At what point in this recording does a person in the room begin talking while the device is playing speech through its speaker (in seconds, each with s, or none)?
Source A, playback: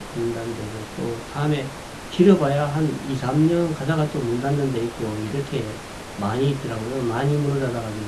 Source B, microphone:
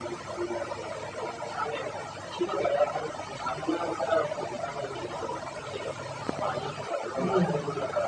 7.1 s